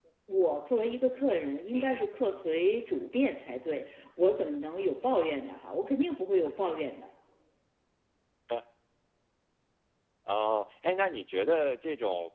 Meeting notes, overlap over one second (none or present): none